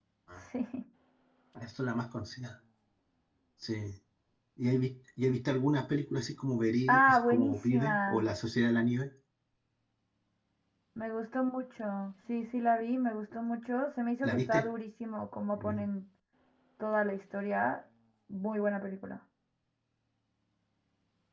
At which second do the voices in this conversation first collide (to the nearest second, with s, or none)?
7 s